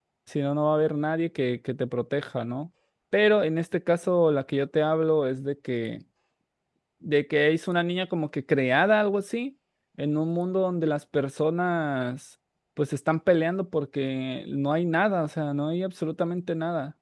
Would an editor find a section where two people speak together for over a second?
No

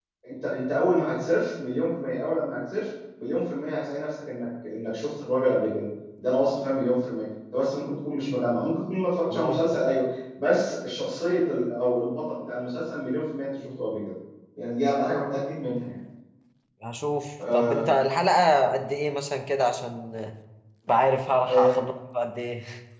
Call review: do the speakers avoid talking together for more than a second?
Yes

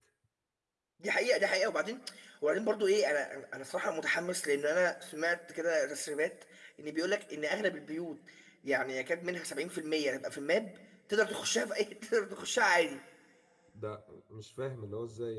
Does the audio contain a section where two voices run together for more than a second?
No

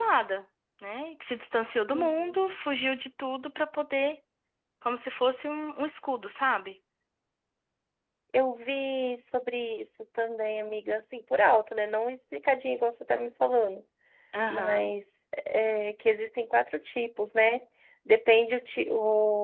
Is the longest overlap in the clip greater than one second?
No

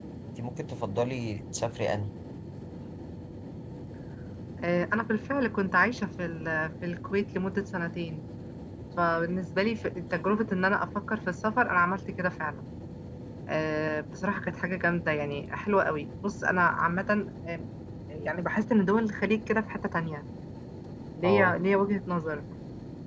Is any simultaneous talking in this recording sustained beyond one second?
No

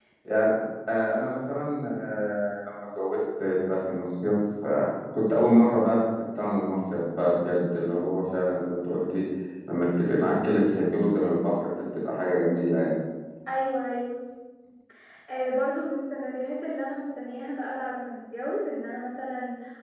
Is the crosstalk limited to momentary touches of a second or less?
Yes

